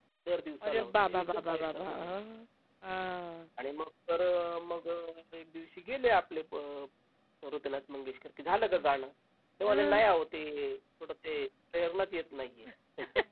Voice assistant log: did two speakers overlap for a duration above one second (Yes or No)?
Yes